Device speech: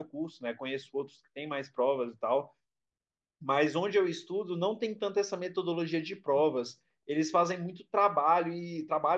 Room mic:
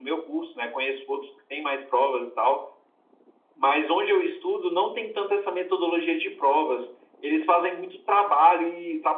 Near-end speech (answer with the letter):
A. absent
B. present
A